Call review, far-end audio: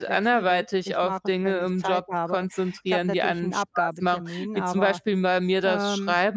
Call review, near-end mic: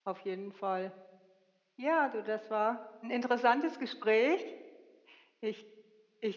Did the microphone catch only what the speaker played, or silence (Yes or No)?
No